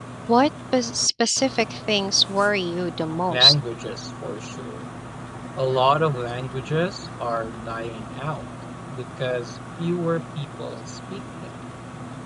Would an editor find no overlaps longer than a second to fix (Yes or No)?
Yes